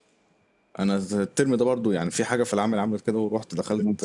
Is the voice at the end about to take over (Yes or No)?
No